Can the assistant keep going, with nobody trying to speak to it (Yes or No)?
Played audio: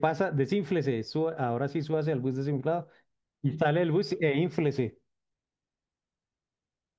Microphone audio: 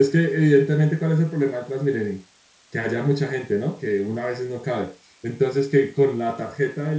No